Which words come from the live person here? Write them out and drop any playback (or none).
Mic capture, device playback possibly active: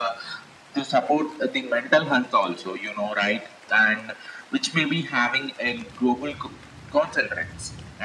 none